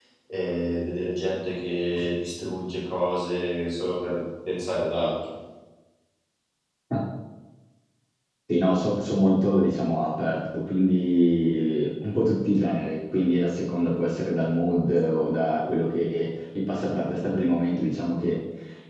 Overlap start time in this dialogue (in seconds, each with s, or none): none